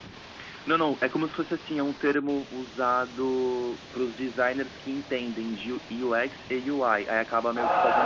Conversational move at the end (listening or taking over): taking over